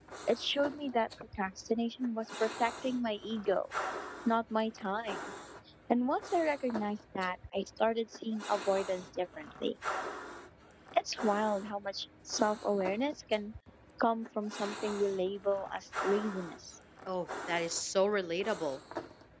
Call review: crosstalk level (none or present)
none